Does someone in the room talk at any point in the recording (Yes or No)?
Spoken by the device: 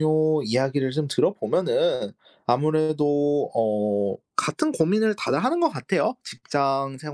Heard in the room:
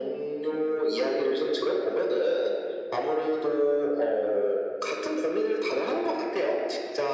No